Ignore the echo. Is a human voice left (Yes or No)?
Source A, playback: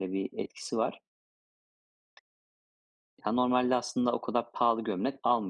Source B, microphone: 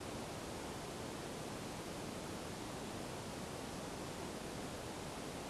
No